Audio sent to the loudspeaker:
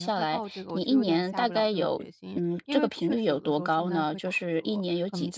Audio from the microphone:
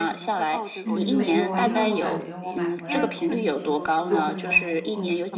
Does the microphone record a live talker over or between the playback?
Yes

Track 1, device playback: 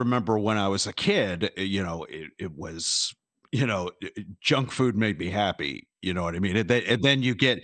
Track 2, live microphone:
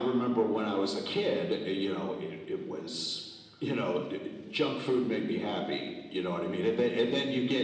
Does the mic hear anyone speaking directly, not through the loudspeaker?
No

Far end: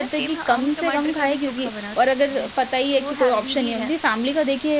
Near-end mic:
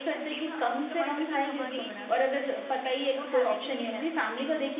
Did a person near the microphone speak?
Yes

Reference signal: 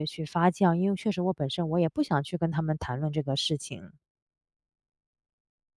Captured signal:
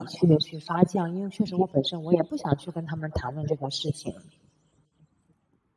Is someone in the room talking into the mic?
No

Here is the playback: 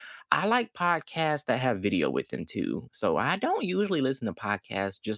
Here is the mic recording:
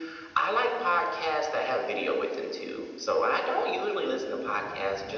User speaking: No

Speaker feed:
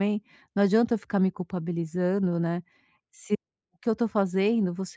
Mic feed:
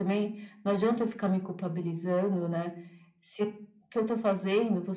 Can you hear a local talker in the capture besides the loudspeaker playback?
No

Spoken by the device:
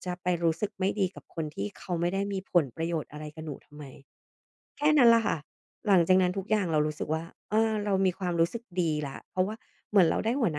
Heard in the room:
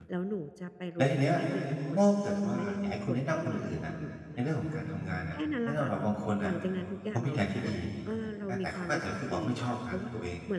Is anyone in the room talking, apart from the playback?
Yes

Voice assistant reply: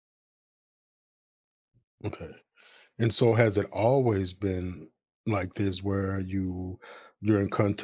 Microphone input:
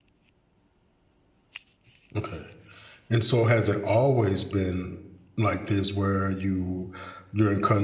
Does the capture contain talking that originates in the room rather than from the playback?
No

